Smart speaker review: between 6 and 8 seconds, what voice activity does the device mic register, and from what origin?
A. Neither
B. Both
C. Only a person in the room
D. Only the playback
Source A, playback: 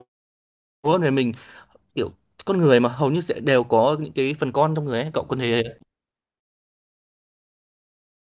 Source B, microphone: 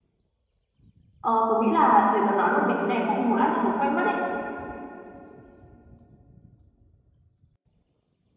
A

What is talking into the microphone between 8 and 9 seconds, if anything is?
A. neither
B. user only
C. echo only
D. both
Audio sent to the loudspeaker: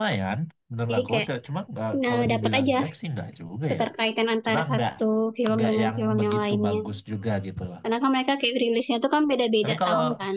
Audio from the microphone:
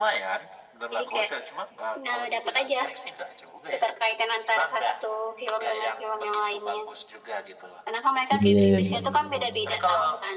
D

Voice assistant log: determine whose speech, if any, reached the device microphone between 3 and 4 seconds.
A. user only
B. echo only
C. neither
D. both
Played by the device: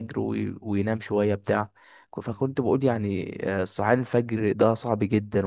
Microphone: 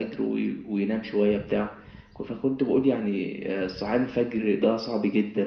B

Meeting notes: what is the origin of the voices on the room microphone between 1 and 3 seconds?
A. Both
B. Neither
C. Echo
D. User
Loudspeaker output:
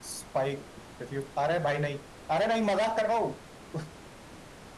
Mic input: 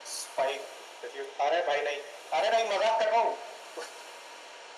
C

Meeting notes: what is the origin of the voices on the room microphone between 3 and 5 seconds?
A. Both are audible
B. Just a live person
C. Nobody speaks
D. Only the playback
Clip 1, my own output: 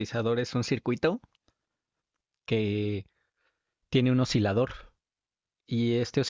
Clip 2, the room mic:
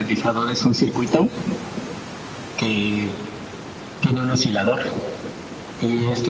D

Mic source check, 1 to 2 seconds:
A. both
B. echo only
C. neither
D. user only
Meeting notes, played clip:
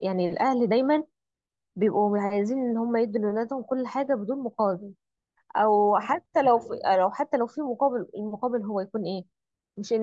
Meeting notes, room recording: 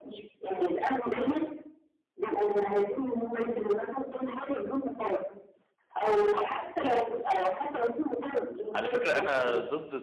B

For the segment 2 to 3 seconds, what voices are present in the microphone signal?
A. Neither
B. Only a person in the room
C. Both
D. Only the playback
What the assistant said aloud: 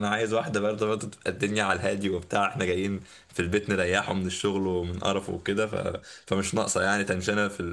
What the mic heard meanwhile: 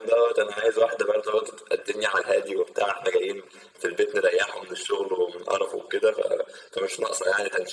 D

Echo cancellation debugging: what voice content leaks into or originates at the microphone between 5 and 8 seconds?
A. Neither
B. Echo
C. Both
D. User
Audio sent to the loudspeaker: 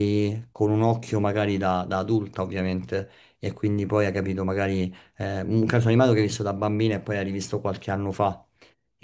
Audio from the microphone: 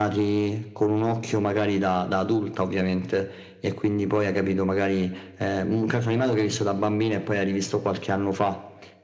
B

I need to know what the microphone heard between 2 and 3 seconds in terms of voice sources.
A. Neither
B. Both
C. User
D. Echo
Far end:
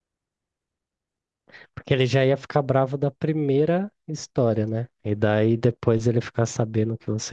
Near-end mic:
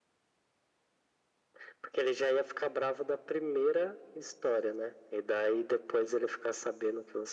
D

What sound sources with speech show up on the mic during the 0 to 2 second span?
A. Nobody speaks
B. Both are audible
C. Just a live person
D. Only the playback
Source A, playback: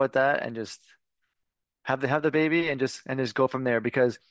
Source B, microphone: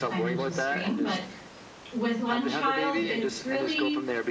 B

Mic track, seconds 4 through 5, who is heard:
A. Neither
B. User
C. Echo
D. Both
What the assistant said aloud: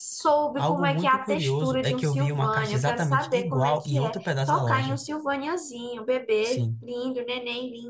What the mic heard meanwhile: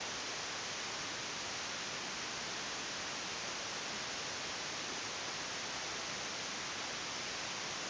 A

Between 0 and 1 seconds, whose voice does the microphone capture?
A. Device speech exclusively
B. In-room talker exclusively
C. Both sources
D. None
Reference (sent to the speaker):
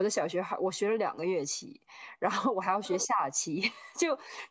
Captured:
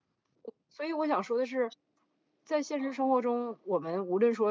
B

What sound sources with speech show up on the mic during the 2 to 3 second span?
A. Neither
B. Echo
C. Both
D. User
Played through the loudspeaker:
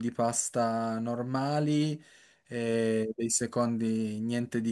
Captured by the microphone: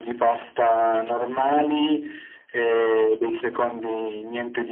B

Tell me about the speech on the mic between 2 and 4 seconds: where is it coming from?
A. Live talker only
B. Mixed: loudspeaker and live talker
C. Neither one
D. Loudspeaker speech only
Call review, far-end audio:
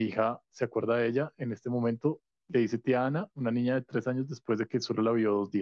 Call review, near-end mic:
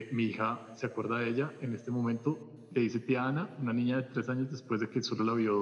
D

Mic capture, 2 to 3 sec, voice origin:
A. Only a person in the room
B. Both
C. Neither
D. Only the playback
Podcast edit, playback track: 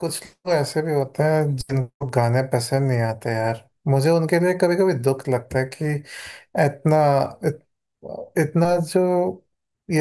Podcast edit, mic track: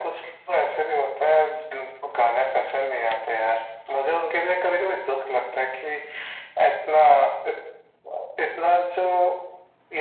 D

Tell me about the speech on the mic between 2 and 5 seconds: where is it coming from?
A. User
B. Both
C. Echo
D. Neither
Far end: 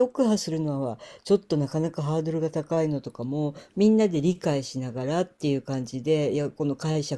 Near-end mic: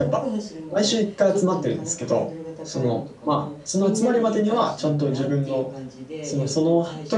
B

